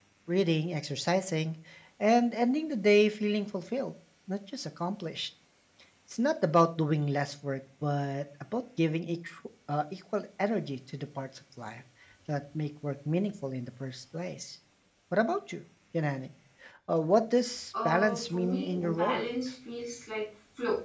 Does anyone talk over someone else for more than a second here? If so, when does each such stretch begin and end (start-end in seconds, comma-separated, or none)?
17.8-19.2